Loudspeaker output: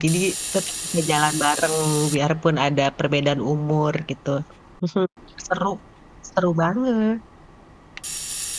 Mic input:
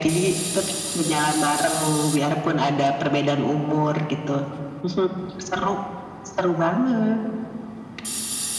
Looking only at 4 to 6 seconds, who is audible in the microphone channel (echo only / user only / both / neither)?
echo only